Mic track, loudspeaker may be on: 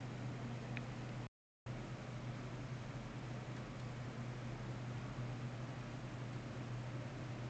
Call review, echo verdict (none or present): none